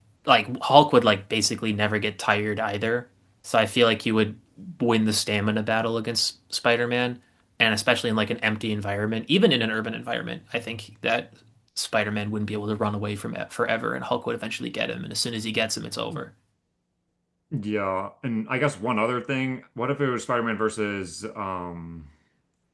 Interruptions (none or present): none